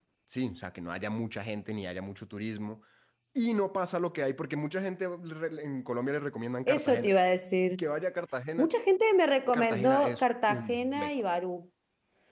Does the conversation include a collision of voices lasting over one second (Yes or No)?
Yes